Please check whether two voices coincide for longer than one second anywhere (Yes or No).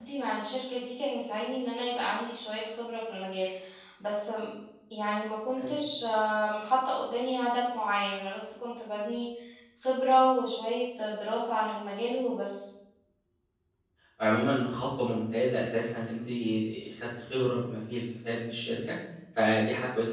No